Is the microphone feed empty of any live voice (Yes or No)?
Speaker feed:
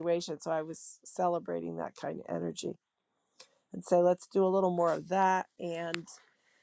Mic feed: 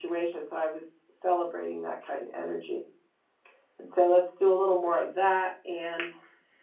Yes